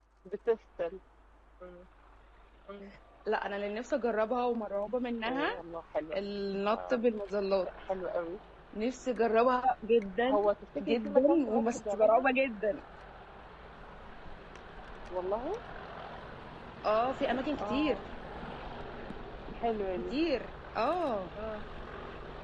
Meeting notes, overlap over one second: present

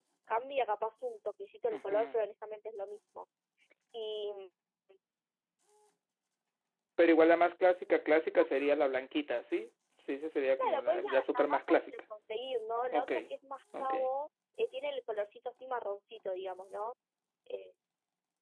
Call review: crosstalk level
present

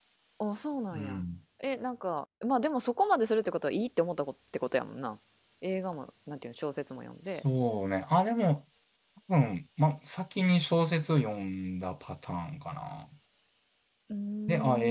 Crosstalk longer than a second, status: none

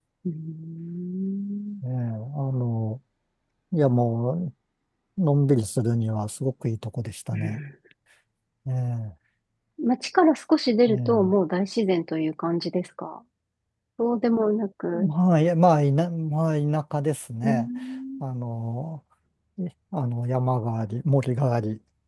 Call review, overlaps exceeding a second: none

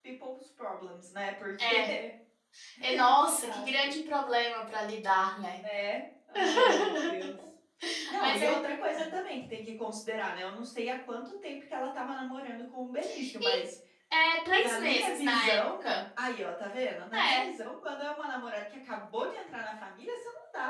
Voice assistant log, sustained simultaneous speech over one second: present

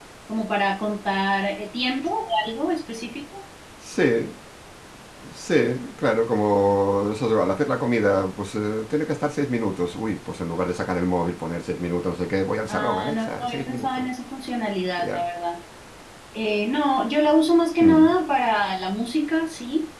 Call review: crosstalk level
present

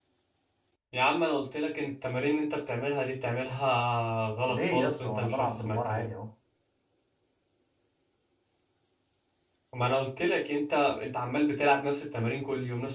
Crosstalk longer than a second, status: present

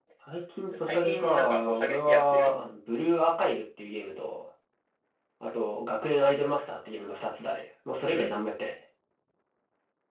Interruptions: present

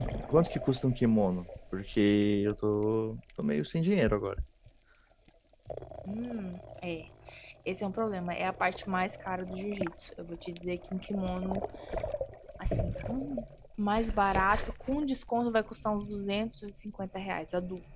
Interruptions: none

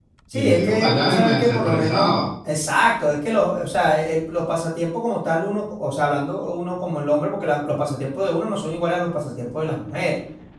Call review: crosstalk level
present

